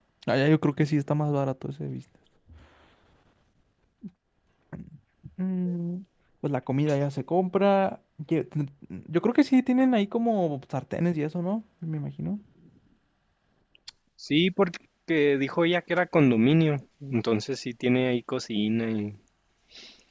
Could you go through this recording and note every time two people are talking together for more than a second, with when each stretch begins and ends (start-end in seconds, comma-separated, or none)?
none